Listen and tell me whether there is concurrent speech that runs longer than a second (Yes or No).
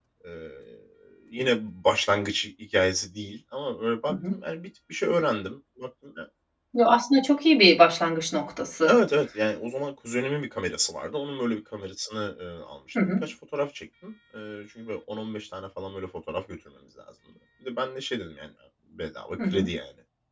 No